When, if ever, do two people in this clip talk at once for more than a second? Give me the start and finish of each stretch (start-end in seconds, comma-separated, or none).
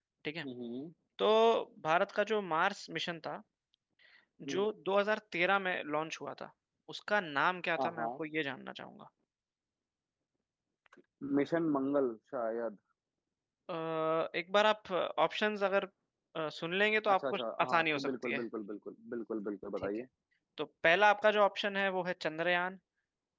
17.1-18.4